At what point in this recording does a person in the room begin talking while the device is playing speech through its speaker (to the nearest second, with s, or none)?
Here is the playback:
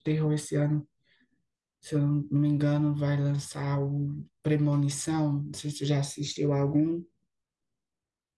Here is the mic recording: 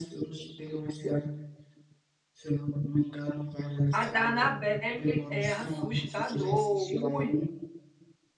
4 s